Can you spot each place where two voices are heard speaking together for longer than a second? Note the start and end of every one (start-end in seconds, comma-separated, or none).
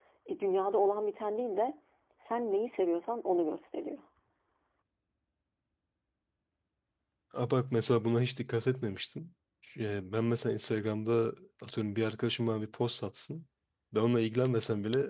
none